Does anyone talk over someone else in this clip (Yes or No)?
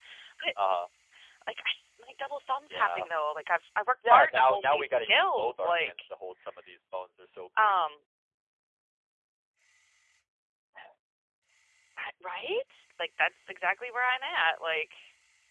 Yes